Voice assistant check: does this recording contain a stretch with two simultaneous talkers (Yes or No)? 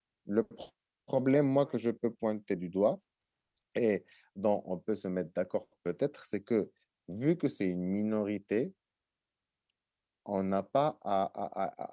No